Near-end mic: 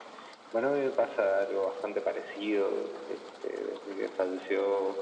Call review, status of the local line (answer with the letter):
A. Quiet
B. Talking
A